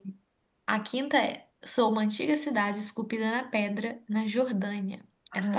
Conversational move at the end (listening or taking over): taking over